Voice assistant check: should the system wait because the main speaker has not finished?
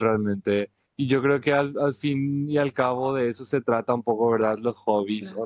Yes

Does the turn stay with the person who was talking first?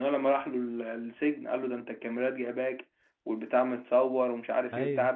Yes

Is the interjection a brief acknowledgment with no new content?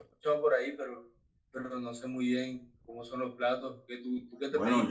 No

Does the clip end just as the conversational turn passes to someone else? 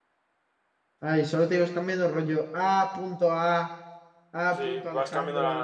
Yes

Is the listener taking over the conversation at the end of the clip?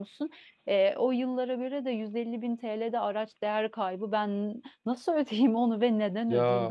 Yes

